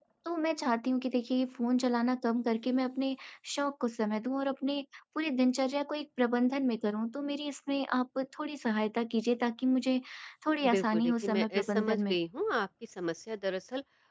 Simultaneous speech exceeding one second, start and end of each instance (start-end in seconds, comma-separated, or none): 10.6-12.2